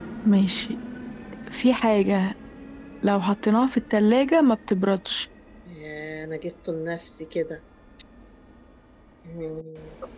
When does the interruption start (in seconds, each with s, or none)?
none